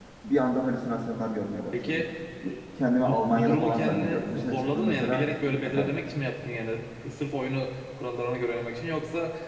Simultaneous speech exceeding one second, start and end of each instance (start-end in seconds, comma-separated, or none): 3.0-5.2